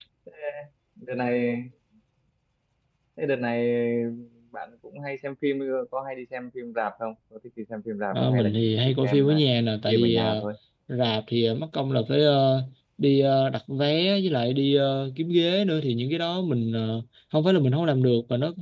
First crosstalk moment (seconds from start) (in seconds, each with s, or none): 8.1 s